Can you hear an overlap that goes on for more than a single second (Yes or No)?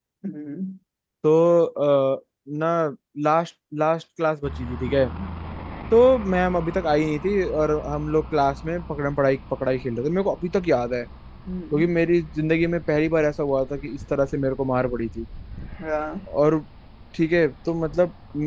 No